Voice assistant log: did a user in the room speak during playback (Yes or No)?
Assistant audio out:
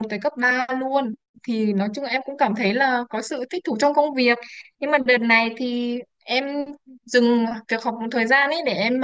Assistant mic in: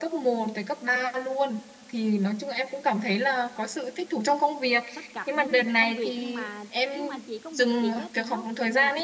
Yes